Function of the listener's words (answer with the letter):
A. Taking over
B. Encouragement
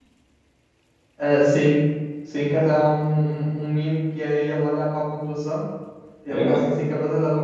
B